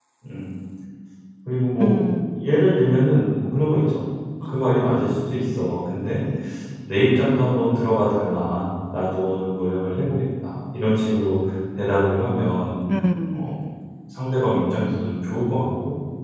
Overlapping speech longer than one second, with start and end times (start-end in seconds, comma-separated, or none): 4.5-5.9